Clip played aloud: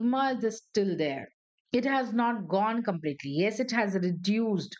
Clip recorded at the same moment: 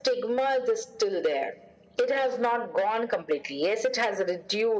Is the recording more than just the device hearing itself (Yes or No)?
No